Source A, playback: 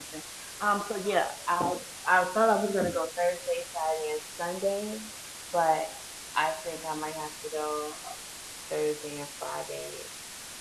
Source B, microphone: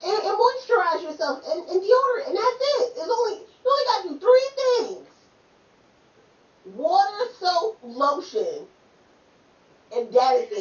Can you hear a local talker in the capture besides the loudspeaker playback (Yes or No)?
Yes